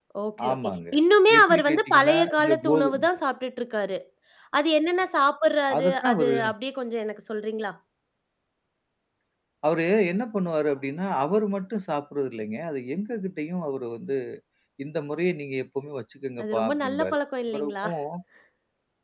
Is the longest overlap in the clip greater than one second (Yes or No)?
Yes